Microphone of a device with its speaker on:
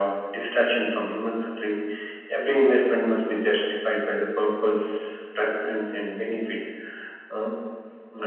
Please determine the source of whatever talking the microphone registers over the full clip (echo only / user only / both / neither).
echo only